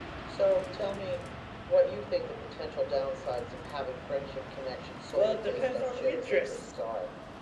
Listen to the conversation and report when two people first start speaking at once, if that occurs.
5.1 s

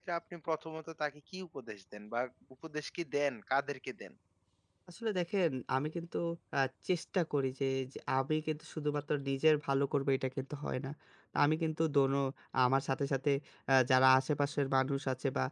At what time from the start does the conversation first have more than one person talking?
none

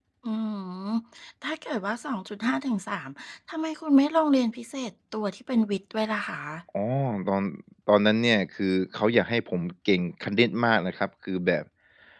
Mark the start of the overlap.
none

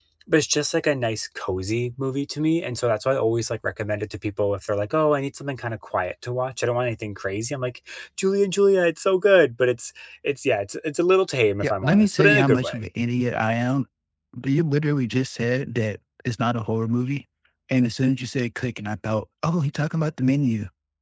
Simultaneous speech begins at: 11.6 s

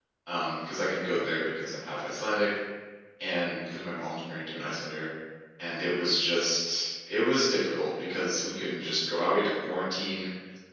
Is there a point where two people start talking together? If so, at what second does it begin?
none

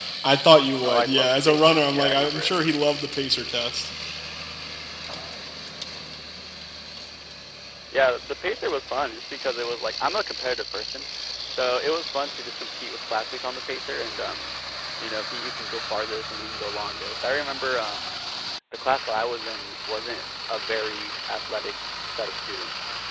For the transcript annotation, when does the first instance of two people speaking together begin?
0.8 s

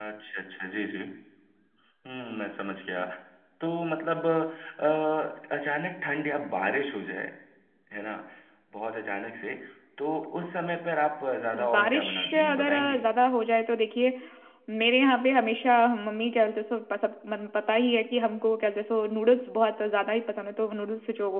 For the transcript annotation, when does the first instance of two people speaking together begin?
11.5 s

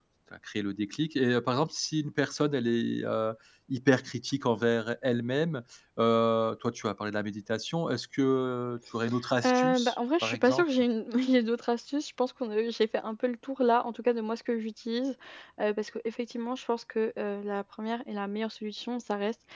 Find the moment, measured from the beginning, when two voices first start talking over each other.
9.4 s

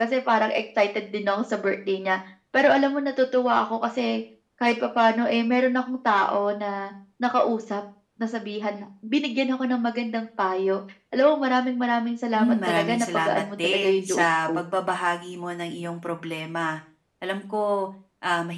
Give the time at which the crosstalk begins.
12.3 s

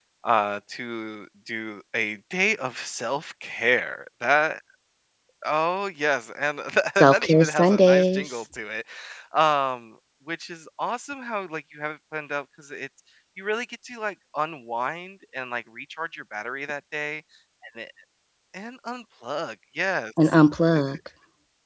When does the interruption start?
7.0 s

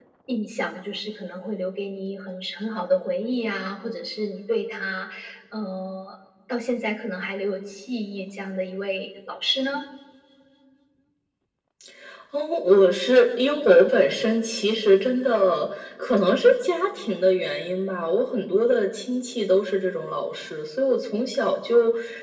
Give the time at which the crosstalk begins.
none

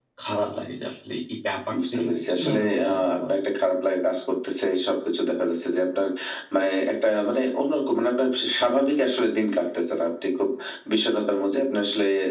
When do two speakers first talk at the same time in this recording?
2.0 s

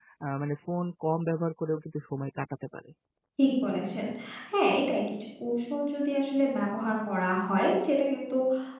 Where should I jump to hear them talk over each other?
none

